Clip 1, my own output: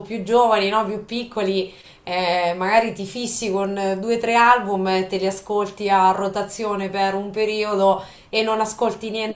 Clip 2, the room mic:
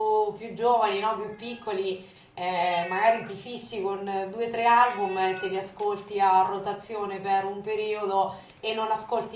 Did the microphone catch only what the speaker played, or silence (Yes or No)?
Yes